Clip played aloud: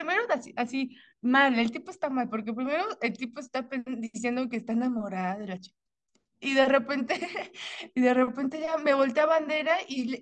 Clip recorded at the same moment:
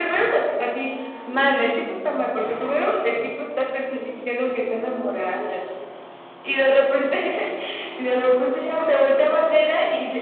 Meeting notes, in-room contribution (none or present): none